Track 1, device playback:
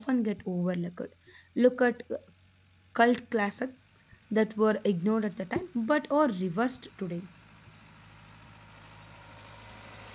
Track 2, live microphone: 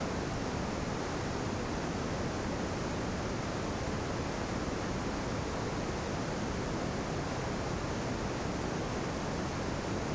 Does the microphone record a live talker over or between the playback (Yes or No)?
No